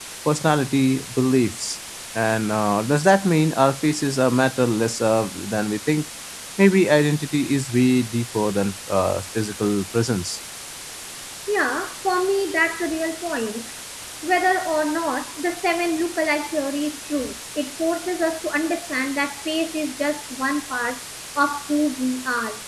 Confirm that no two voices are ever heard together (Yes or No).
Yes